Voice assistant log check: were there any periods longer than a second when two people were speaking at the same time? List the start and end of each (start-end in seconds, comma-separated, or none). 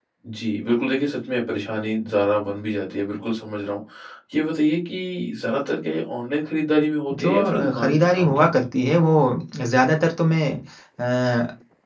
7.1-8.5